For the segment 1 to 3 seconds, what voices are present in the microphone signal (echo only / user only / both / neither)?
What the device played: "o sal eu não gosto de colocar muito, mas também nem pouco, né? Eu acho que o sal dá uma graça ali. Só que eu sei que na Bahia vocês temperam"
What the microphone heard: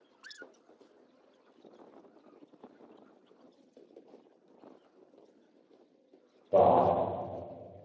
neither